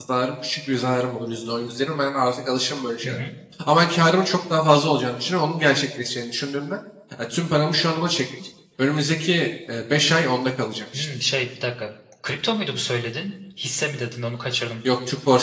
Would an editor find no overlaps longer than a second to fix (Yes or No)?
Yes